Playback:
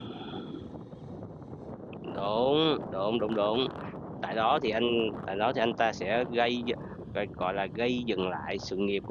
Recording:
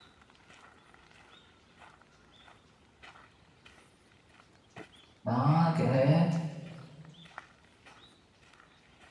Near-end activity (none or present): present